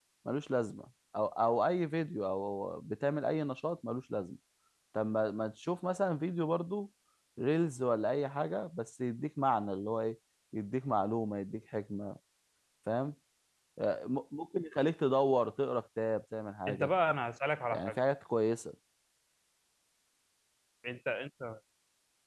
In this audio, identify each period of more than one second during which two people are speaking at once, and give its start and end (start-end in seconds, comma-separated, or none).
none